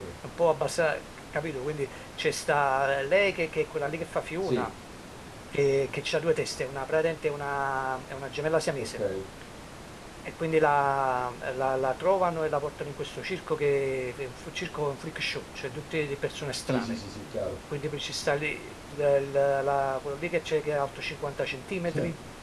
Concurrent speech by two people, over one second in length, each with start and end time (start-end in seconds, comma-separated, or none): none